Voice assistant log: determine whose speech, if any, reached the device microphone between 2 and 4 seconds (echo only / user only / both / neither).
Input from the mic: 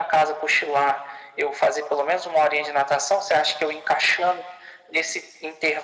echo only